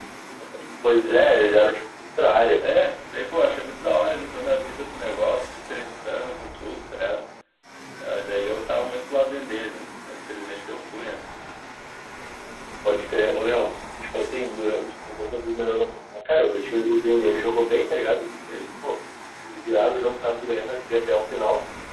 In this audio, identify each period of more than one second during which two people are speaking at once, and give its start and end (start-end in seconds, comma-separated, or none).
none